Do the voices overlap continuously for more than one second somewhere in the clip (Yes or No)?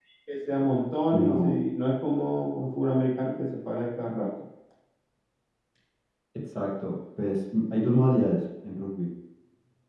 No